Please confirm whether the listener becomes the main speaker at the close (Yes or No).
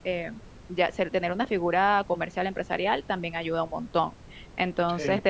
No